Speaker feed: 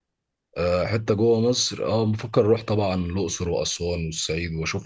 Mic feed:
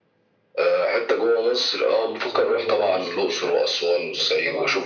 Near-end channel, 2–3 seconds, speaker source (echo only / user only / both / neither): both